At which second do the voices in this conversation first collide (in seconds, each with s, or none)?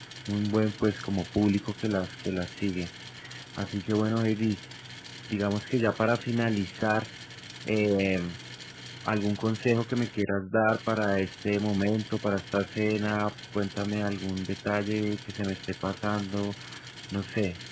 none